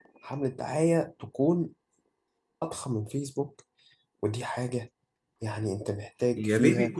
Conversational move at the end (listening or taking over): taking over